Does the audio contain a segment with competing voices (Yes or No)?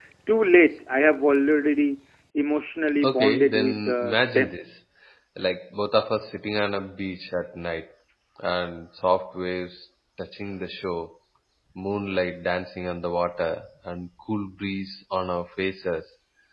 Yes